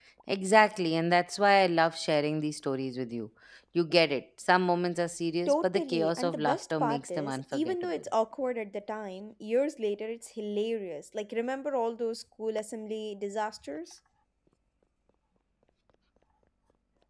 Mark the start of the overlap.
5.5 s

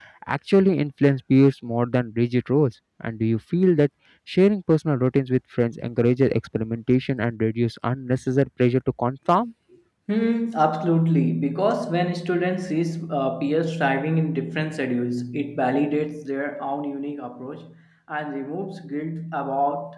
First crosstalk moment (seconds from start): none

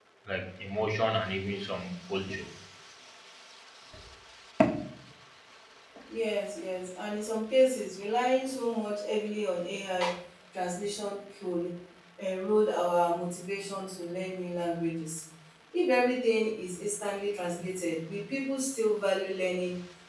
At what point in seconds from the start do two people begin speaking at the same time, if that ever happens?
none

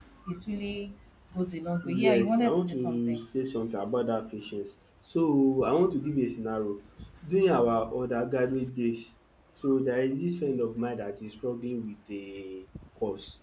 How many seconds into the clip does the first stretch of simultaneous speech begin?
1.8 s

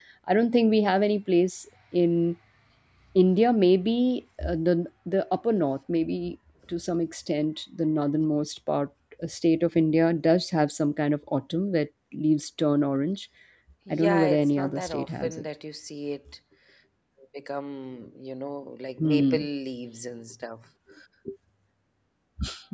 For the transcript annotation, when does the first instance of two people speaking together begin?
13.9 s

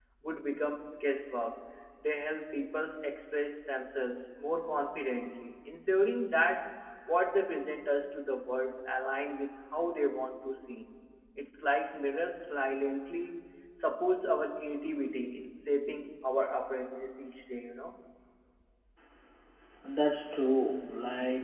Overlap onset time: none

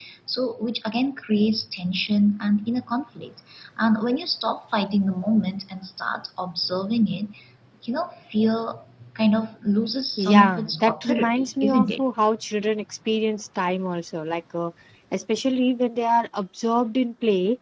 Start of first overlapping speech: 10.2 s

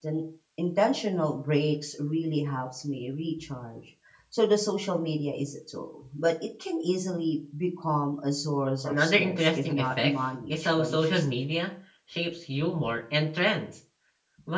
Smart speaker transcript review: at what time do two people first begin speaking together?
8.8 s

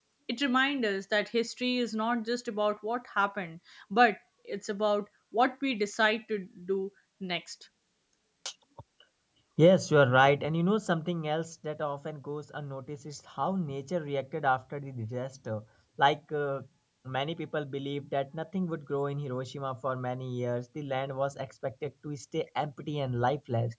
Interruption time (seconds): none

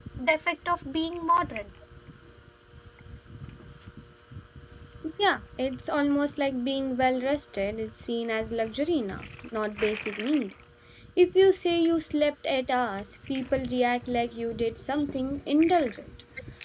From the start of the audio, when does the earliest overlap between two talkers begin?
none

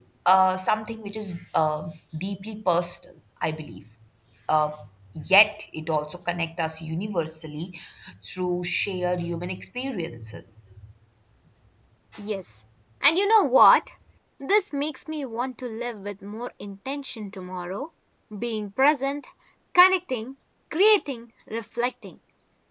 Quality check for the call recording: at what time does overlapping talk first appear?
none

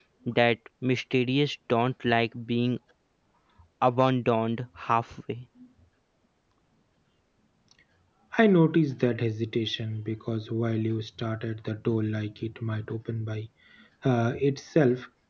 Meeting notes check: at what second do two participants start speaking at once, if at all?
none

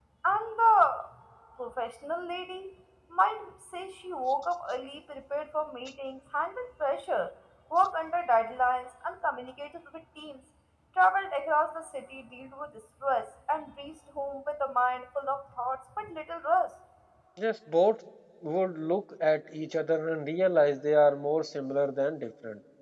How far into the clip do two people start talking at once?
none

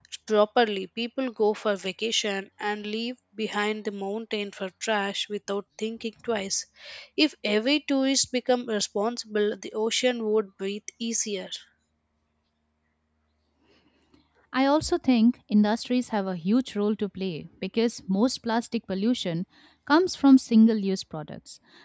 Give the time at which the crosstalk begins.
none

